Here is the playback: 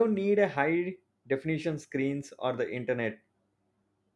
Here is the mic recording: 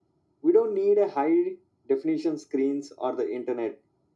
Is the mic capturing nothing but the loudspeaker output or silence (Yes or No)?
Yes